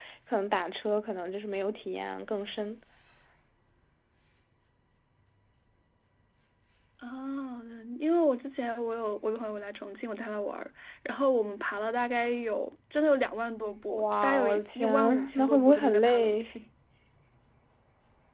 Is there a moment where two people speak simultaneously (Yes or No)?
Yes